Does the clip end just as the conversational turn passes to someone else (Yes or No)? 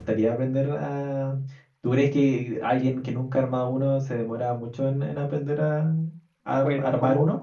Yes